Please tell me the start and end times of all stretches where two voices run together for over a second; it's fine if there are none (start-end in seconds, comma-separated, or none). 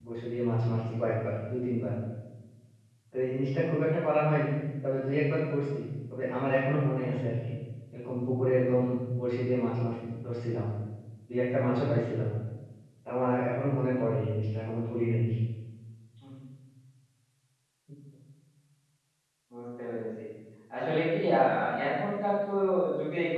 none